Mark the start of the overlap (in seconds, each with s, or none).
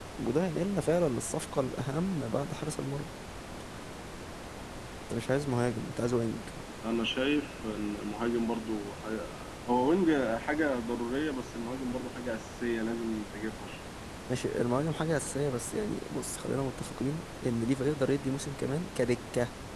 none